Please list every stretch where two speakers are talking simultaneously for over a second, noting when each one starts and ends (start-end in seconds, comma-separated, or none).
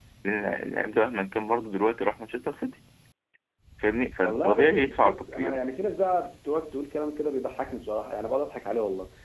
4.2-5.6